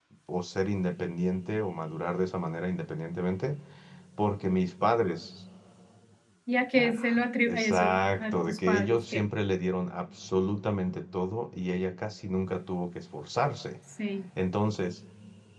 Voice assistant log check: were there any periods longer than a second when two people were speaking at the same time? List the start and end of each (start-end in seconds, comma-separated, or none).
6.8-9.3